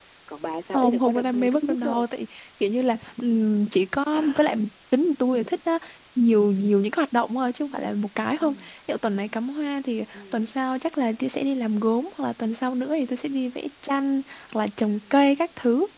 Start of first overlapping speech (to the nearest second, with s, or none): 1 s